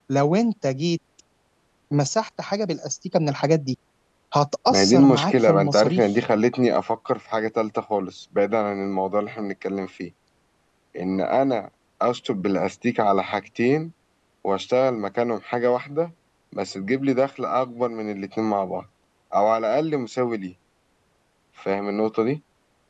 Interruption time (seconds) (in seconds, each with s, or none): 4.7 s